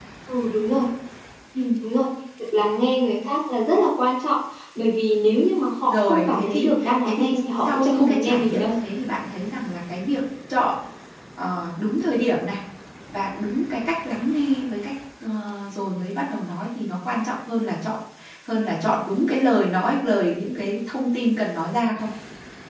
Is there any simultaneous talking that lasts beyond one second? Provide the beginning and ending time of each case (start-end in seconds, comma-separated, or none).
5.9-8.7